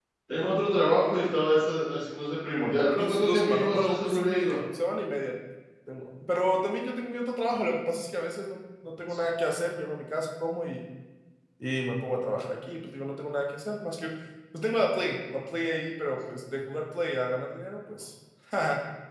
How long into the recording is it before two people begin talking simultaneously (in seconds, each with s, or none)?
2.8 s